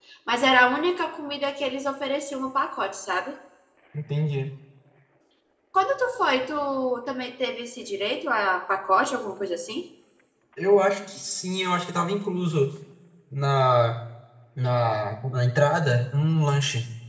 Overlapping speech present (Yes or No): No